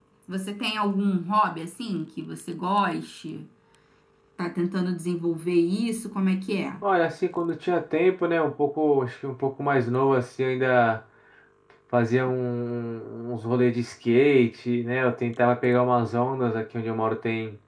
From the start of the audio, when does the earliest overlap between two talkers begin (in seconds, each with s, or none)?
none